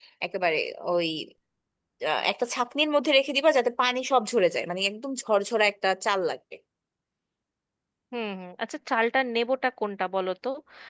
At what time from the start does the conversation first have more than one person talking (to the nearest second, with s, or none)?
none